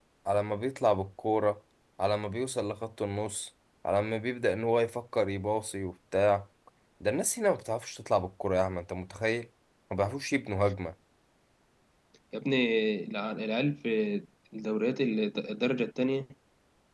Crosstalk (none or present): none